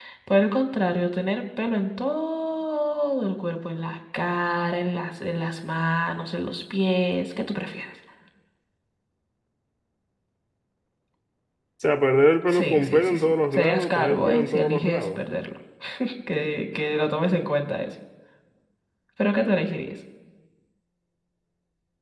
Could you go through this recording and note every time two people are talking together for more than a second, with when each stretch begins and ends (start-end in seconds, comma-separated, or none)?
12.5-15.2